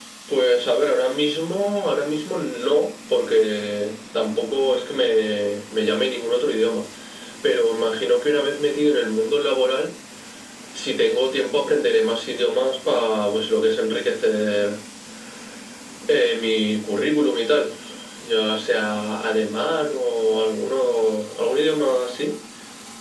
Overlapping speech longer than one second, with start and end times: none

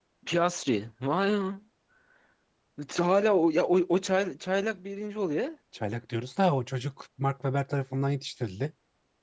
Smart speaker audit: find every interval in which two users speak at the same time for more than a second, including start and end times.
none

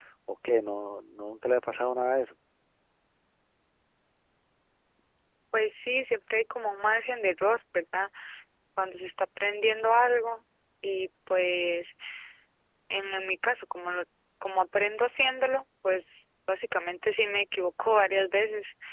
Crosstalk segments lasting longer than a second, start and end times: none

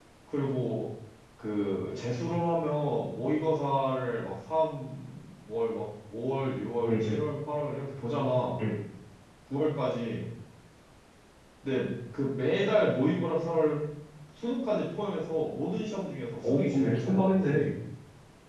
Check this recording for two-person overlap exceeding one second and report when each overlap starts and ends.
16.5-17.7

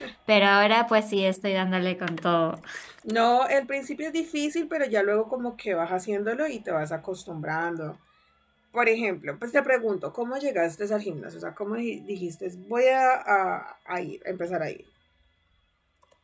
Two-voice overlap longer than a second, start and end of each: none

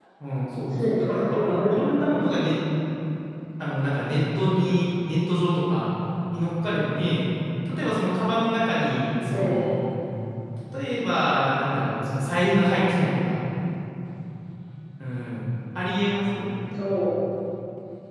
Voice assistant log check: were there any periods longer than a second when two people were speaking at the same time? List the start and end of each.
0.7-2.3

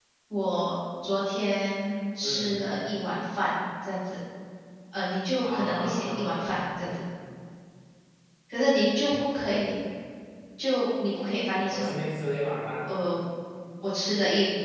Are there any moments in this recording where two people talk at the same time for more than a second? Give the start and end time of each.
5.4-6.9

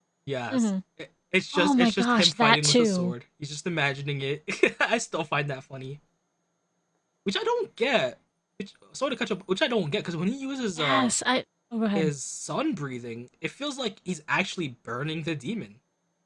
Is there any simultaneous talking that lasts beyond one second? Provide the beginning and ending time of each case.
1.5-3.1

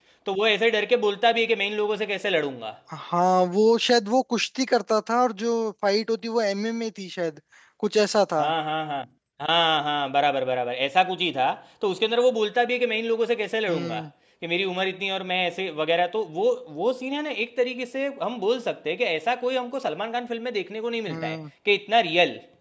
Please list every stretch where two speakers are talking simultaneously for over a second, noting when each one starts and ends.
none

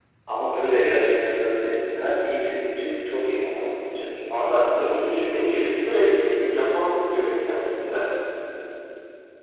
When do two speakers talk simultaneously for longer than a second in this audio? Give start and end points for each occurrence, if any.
4.3-6.5

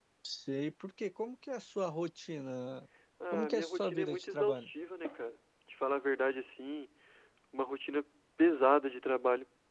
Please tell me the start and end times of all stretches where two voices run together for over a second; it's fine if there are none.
3.3-4.7

